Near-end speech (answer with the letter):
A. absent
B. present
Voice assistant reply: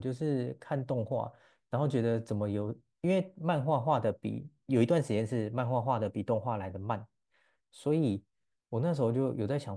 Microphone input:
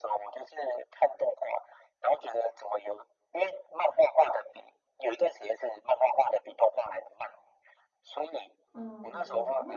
B